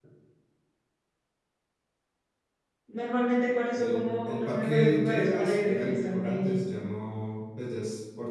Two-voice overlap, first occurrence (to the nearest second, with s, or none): 4 s